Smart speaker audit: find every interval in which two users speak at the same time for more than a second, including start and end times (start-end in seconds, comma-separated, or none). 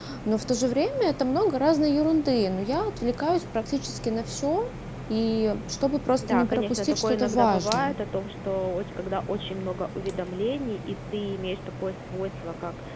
6.2-8.0